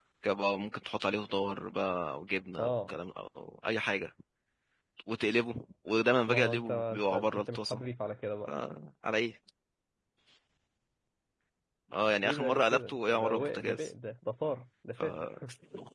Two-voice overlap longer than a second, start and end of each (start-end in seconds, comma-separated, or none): 6.3-7.8, 12.2-13.9